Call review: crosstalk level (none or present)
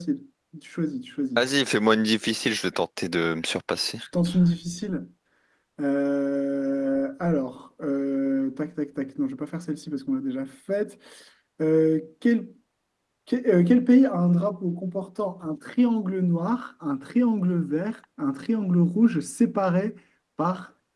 none